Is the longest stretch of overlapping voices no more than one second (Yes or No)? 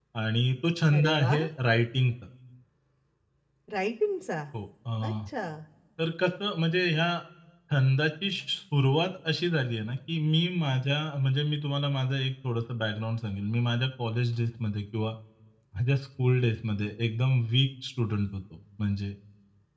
Yes